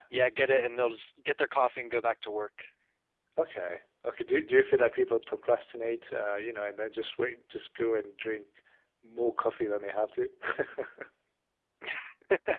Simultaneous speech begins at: none

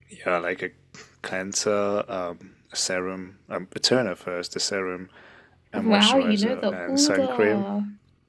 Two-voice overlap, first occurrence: 5.8 s

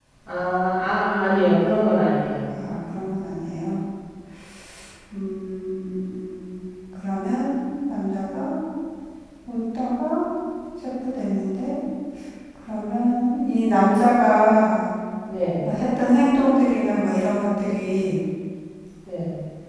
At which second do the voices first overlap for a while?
none

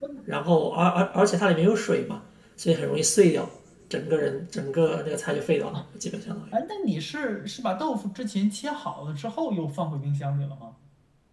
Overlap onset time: none

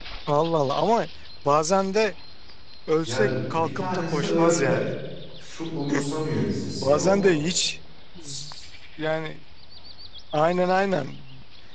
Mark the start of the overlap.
3.1 s

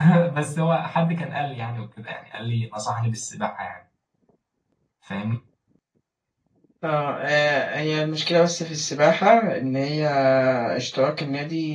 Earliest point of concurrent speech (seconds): none

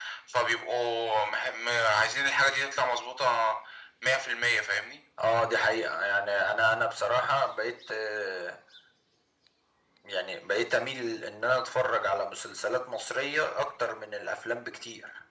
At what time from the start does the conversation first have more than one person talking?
none

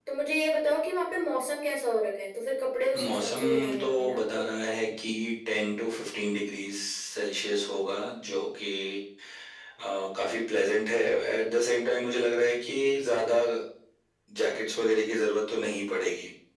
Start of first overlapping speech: 2.9 s

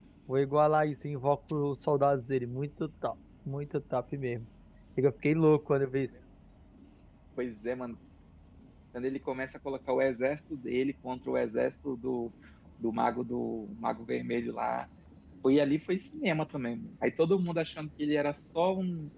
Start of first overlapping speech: none

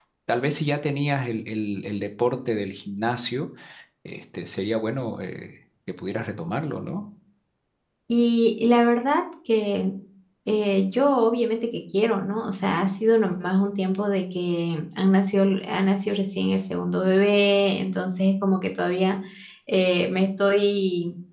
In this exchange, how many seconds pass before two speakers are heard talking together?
none

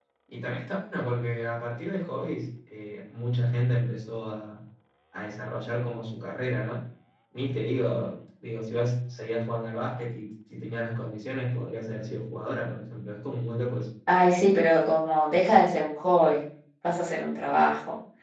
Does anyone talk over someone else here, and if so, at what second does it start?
none

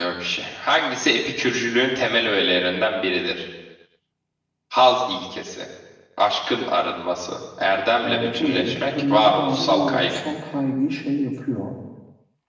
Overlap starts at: 8.0 s

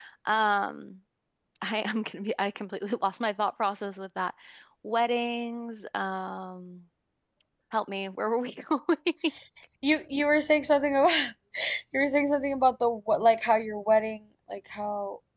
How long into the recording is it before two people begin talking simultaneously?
none

